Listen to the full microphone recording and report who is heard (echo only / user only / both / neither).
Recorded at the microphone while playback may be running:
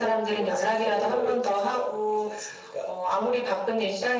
echo only